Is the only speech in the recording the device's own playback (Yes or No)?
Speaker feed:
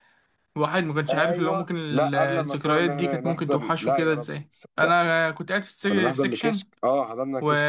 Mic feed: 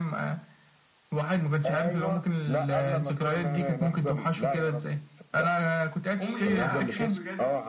No